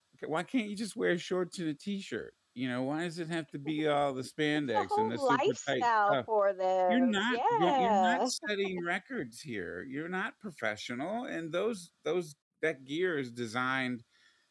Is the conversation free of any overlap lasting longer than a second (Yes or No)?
No